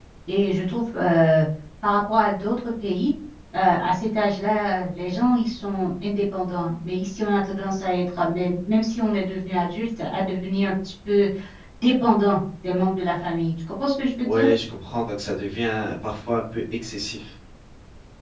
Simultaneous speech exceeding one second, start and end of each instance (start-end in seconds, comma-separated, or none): none